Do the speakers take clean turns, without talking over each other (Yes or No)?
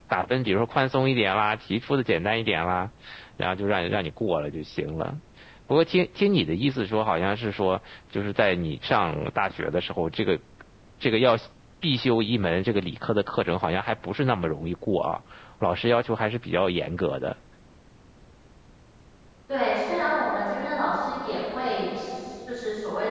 Yes